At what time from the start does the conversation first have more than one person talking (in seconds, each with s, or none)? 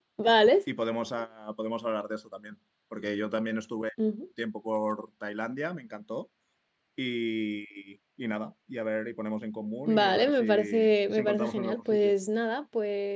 9.8 s